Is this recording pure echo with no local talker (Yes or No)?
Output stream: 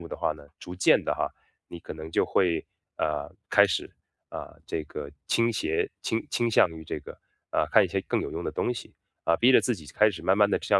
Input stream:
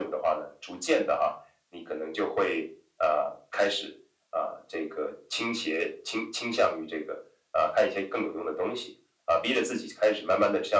Yes